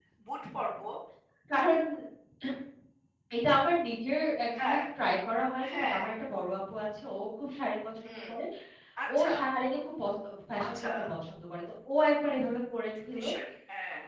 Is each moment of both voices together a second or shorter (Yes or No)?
Yes